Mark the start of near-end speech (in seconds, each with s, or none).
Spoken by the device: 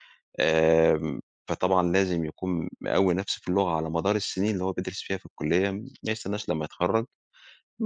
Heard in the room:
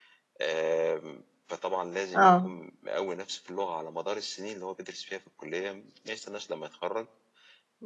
2.2 s